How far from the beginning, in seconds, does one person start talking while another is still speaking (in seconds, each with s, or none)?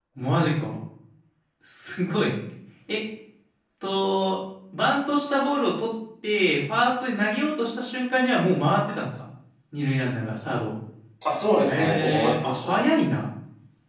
11.7 s